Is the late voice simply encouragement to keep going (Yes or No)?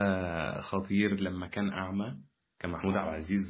Yes